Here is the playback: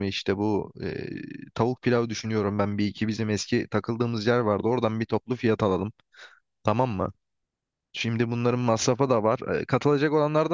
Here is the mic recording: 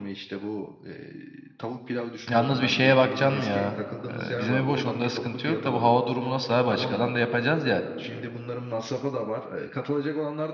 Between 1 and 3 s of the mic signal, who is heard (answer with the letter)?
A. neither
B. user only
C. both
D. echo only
C